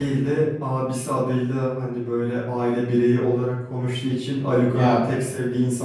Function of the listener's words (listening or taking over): listening